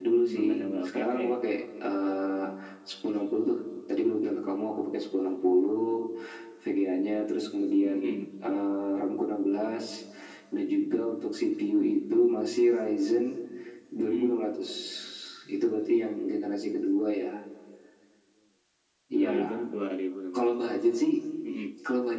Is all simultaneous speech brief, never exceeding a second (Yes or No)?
Yes